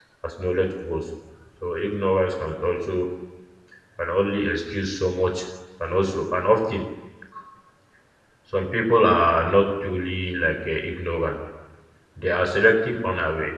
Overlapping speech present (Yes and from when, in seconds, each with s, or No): No